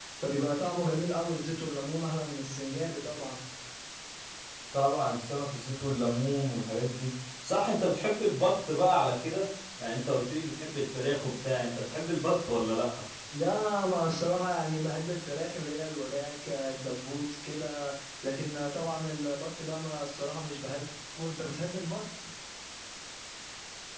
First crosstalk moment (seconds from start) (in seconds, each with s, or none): none